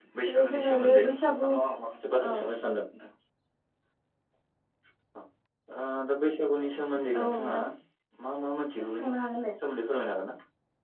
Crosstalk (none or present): present